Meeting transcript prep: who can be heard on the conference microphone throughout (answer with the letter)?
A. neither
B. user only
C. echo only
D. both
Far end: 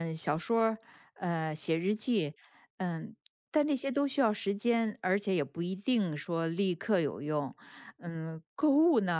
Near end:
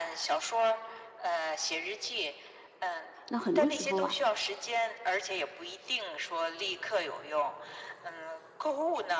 D